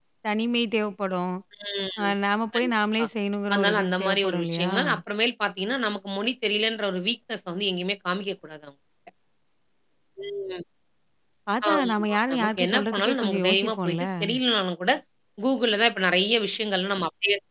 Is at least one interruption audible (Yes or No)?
Yes